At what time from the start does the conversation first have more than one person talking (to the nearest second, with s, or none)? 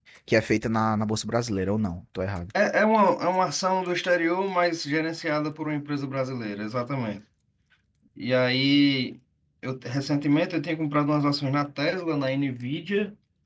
none